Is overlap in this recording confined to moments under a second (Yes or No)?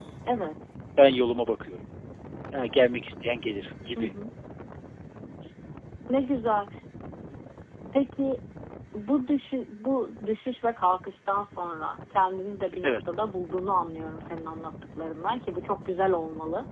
Yes